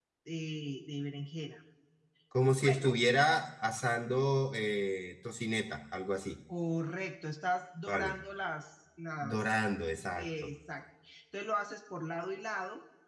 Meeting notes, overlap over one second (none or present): none